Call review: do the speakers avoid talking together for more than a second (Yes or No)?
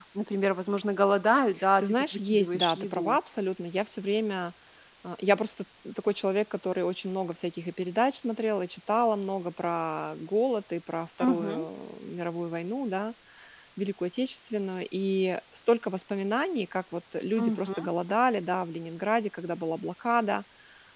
No